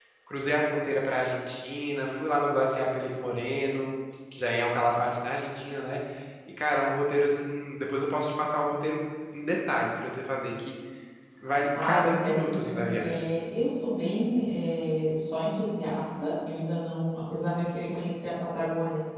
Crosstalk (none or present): present